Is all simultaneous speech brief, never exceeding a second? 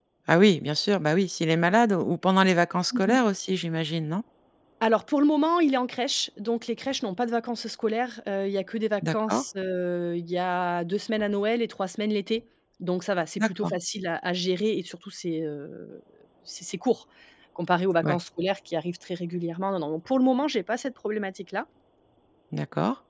Yes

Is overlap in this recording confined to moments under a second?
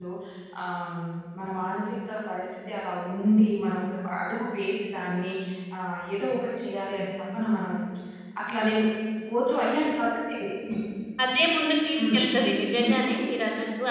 Yes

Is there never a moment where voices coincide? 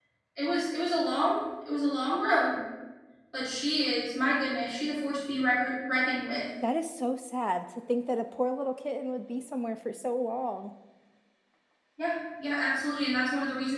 Yes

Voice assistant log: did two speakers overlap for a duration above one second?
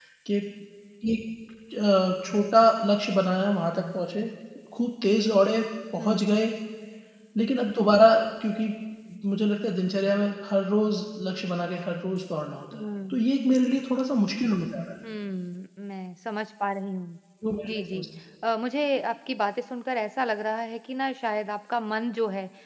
No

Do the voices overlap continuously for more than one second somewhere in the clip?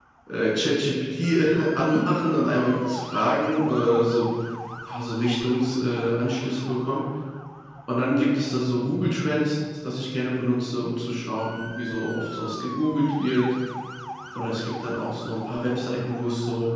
No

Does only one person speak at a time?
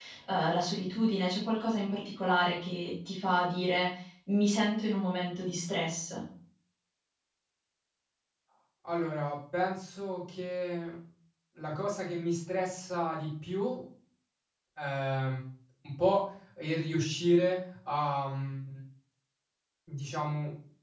Yes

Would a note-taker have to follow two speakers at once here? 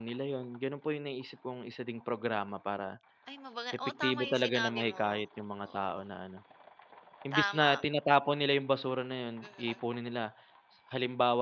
Yes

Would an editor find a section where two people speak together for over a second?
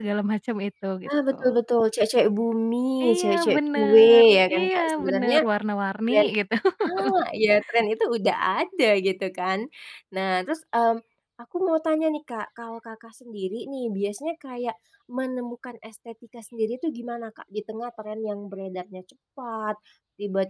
Yes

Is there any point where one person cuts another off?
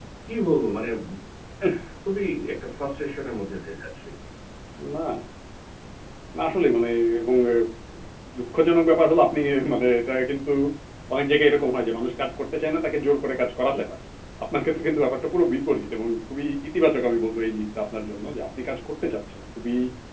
No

